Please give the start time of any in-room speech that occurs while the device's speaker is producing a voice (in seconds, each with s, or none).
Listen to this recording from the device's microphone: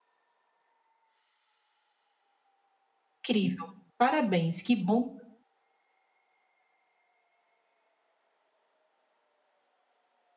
3.2 s